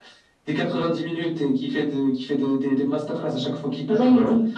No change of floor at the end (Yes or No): No